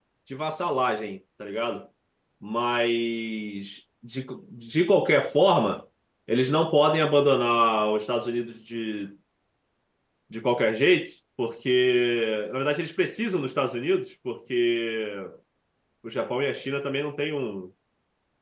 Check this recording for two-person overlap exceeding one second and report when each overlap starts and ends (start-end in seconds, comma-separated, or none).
none